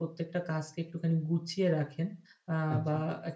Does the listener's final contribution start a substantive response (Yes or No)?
No